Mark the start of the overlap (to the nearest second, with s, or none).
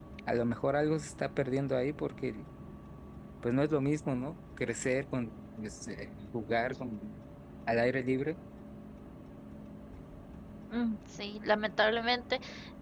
none